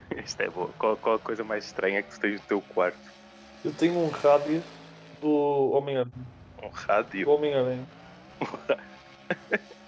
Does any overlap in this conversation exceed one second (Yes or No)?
No